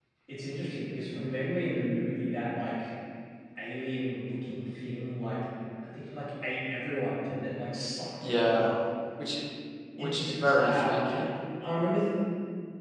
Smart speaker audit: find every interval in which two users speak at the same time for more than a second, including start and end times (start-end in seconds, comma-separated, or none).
10.0-11.2